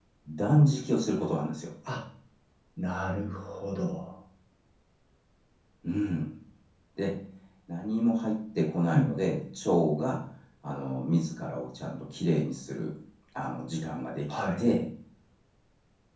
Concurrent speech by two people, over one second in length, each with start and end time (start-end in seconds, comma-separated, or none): none